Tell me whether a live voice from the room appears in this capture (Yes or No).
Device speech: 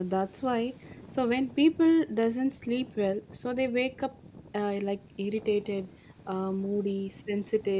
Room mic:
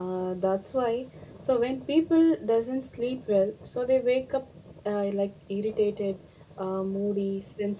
No